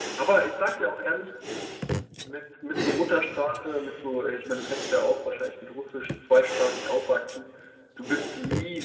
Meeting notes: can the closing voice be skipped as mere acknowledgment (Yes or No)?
Yes